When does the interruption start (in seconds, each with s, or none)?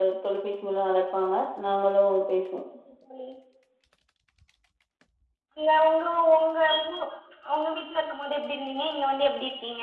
none